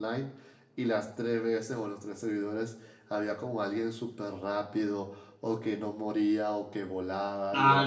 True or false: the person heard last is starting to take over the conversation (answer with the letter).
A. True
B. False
A